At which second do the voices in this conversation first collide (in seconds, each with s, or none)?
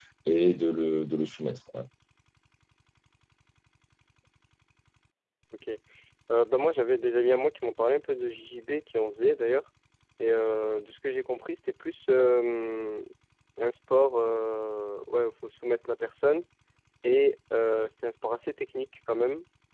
none